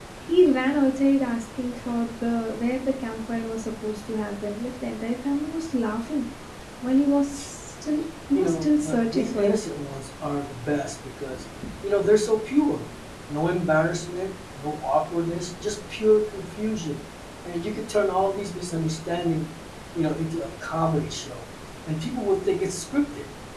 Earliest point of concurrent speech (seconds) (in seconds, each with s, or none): 8.3 s